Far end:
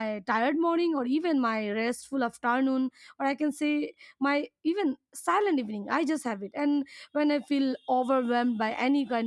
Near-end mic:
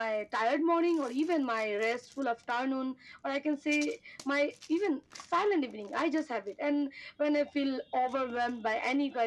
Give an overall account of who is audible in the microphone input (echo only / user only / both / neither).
echo only